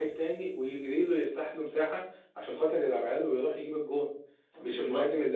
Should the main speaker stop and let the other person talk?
No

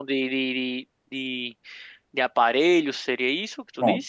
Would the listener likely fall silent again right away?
No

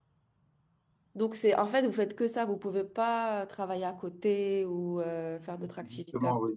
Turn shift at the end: Yes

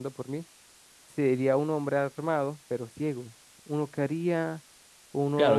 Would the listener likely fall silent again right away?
No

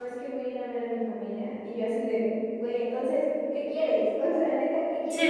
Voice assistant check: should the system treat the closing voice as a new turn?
No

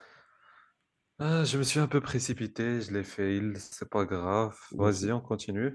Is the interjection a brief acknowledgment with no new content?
Yes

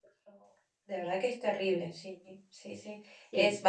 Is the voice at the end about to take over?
No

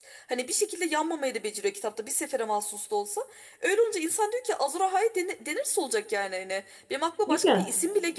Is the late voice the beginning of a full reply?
No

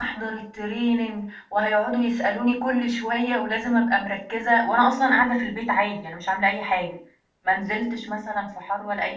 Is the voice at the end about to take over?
No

